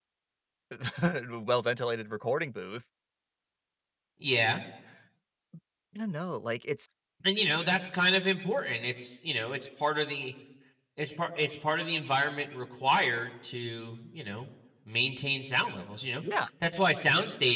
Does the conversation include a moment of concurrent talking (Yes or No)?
No